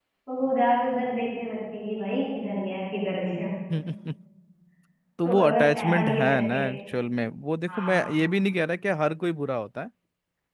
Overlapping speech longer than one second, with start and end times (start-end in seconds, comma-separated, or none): 5.2-6.6